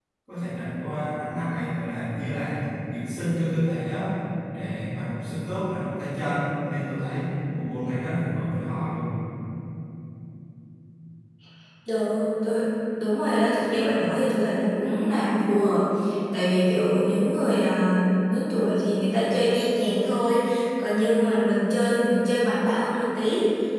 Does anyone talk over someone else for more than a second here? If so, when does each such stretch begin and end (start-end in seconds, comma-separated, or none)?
none